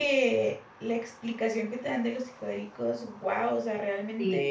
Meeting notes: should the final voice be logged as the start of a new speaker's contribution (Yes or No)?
No